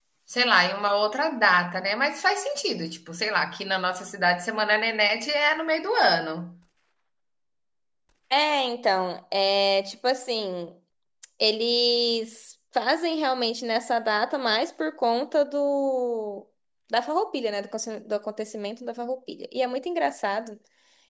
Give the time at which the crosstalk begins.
none

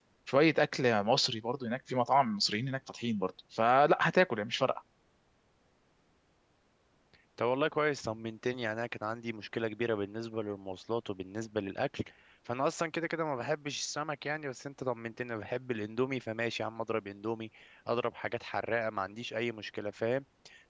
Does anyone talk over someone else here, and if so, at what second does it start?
none

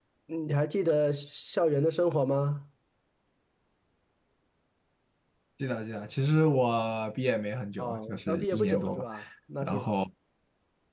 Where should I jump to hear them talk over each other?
8 s

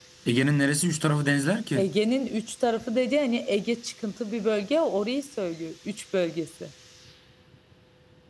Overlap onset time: none

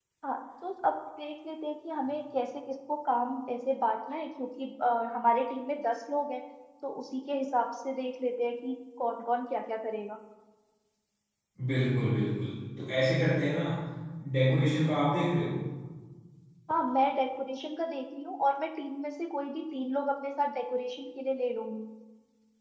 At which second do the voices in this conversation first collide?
none

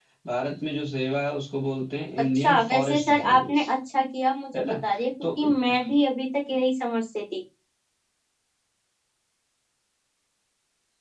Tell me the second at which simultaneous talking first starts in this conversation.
2 s

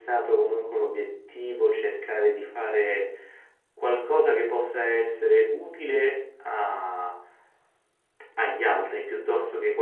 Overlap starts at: none

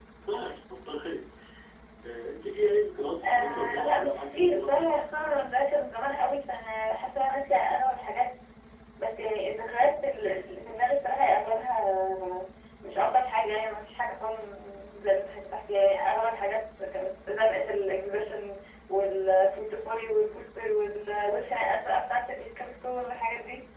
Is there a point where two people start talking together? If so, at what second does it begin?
3 s

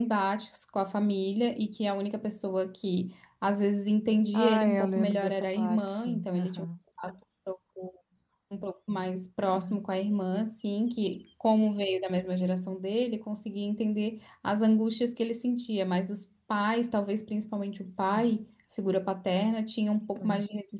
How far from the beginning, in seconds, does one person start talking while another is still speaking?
4 s

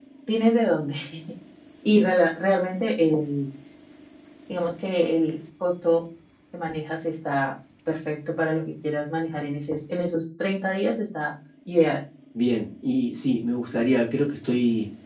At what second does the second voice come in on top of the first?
none

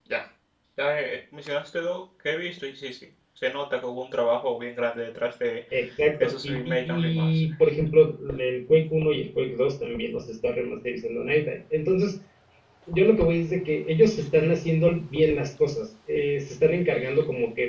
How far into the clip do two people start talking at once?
6 s

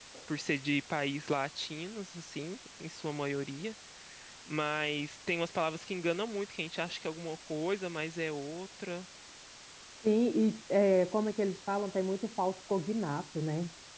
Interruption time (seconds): none

